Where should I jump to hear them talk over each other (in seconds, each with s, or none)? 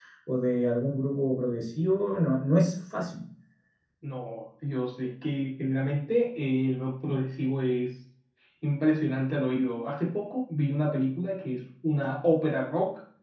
none